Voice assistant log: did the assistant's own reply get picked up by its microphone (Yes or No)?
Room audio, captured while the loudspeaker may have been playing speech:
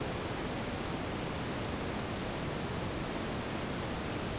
No